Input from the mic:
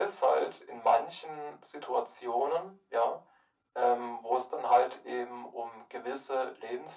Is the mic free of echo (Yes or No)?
No